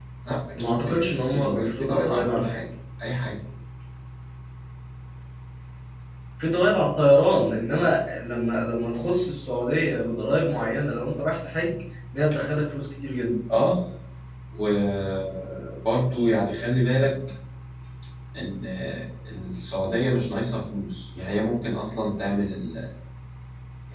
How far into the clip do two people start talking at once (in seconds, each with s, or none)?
0.6 s